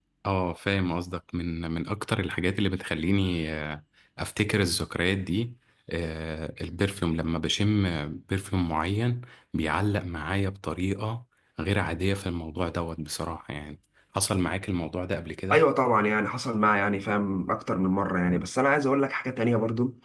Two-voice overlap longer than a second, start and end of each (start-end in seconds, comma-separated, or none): none